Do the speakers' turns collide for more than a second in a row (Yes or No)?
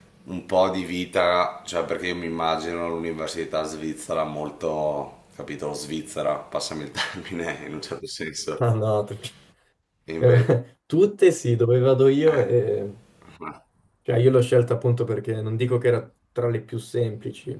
No